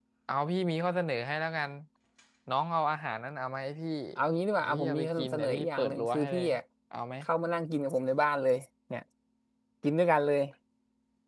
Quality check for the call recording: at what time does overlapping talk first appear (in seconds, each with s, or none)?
4.6 s